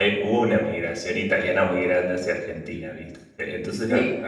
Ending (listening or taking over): listening